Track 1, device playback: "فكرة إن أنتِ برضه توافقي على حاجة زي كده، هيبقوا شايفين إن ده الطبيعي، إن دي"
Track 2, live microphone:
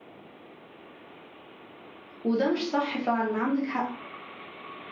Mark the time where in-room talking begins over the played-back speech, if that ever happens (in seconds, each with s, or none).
2.2 s